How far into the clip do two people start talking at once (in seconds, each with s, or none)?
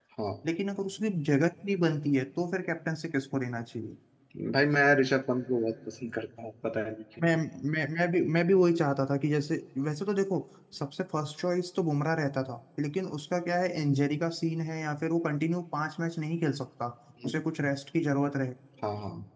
none